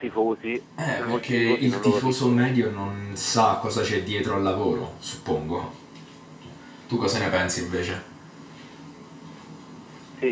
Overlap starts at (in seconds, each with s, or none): 0.9 s